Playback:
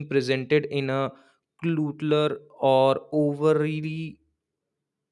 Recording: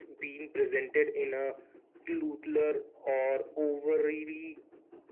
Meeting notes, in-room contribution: none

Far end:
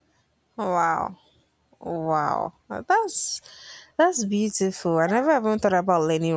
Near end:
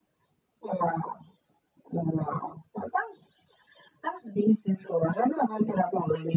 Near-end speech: none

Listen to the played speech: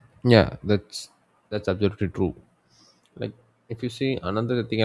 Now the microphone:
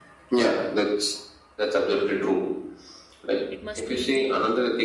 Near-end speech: present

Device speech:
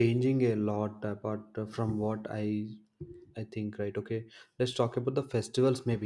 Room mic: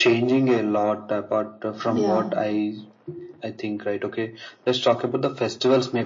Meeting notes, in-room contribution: present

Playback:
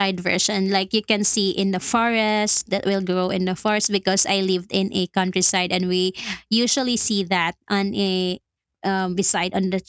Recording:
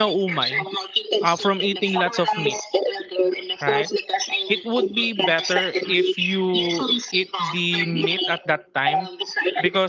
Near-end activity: present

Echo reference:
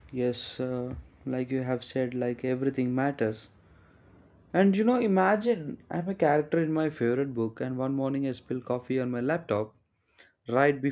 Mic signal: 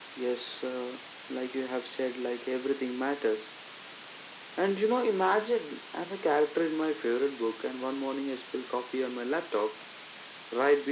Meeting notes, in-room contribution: none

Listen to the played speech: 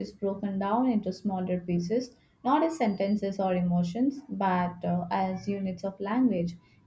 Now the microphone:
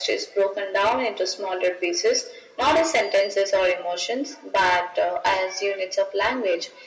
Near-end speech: none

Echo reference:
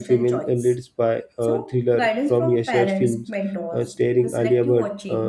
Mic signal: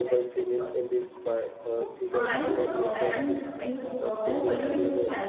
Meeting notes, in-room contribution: present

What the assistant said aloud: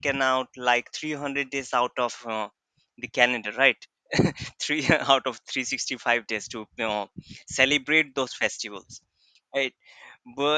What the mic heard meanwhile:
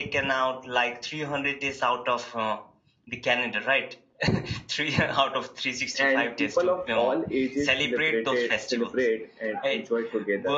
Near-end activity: present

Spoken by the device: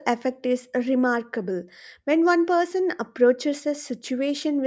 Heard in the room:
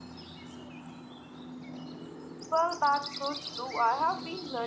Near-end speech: present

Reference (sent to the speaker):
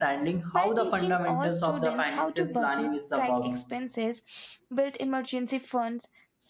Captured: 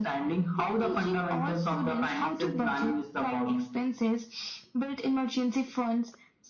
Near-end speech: none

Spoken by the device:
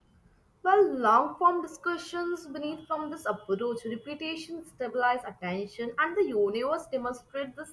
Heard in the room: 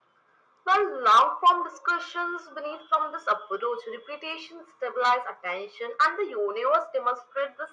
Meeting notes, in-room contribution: none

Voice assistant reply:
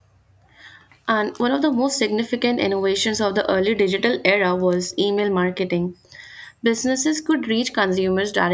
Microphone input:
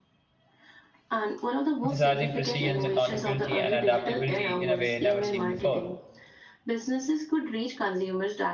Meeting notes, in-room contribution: present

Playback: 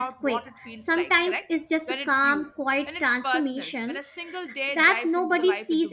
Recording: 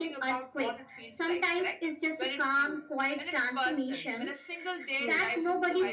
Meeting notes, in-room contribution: present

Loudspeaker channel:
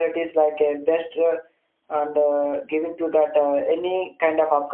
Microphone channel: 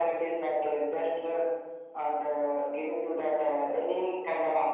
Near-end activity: none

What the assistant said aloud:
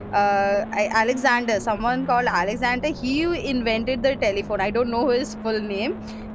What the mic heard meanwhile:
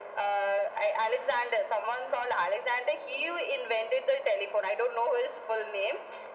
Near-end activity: none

